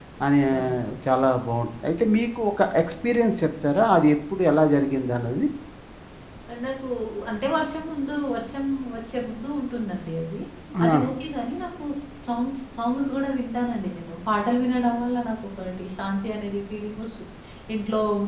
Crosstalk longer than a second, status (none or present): none